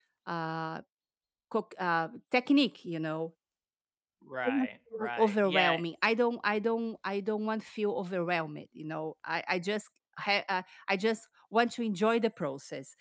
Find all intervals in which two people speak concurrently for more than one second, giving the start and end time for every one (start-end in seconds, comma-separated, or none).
4.4-5.8